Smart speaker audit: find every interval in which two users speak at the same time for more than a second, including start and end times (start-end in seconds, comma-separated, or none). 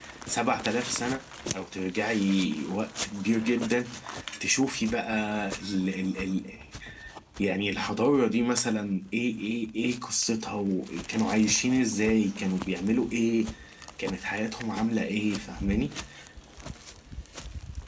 none